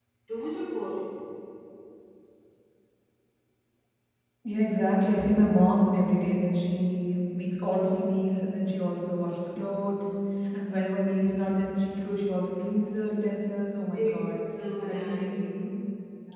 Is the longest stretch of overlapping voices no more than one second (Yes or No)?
Yes